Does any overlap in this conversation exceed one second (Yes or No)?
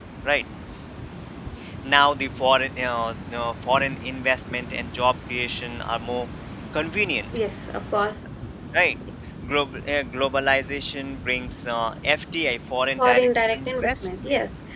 Yes